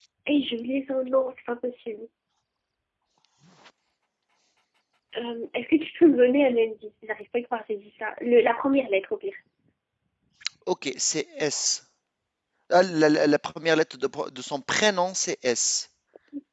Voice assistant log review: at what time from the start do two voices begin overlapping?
none

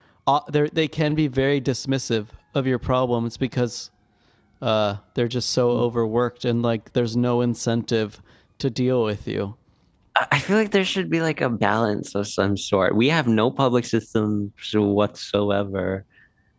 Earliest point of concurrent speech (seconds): none

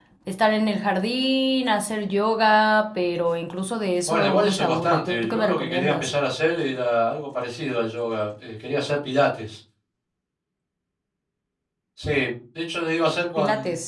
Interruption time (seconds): 4.1 s

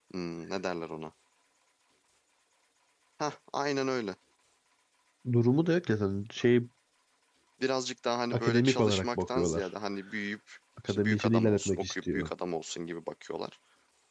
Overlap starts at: 8.3 s

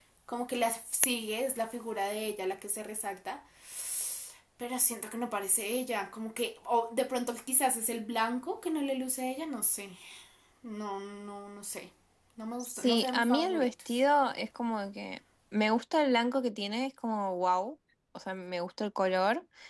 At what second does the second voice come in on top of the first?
12.6 s

